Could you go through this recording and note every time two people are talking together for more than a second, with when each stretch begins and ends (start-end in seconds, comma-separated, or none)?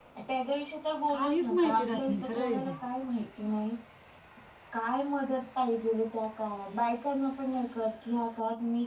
1.1-2.7